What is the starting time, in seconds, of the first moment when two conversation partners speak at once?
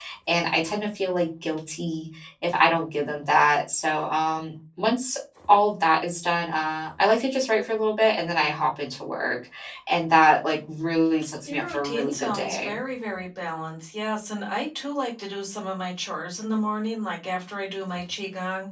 11.5 s

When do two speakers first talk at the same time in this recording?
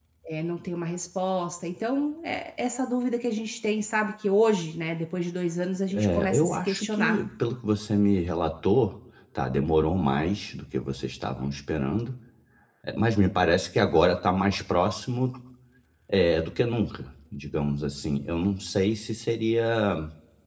5.9 s

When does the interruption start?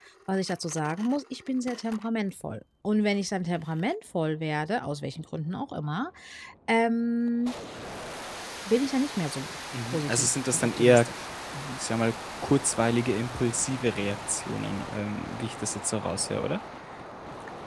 9.9 s

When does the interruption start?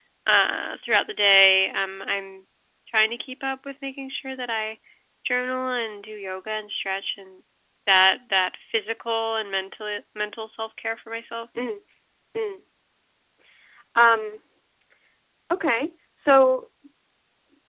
none

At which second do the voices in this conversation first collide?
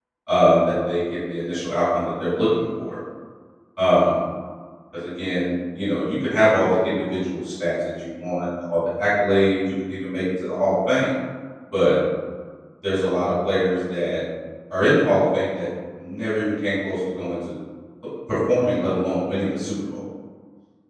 none

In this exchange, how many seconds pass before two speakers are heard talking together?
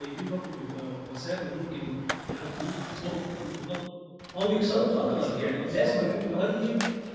4.7 s

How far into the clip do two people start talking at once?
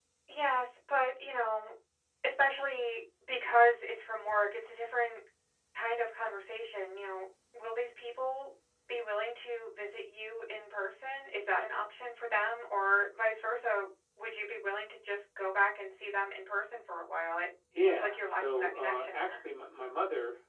17.7 s

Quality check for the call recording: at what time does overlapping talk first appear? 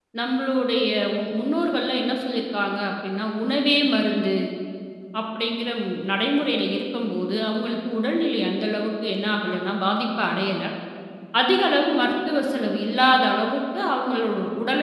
none

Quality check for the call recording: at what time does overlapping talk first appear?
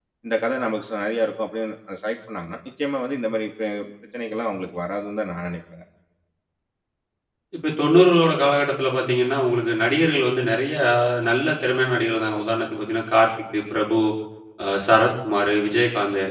none

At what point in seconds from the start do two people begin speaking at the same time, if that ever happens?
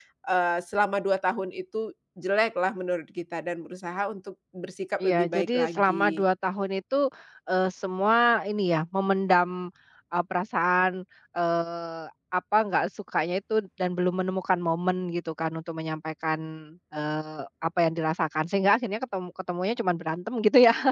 5.0 s

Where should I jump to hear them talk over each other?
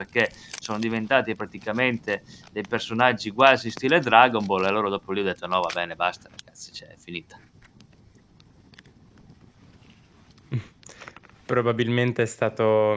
none

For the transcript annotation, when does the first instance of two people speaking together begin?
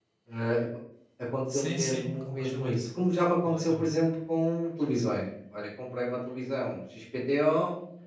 1.5 s

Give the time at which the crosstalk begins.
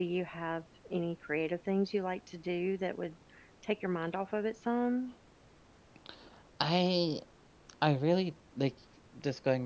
none

